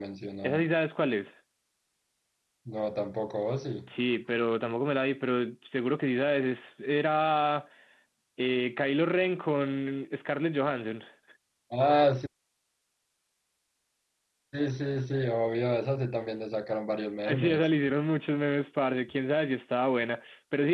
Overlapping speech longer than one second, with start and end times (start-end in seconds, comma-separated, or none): none